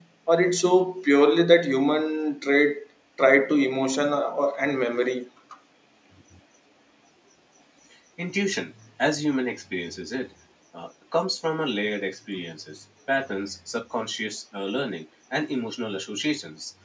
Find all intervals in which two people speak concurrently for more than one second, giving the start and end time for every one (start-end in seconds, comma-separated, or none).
none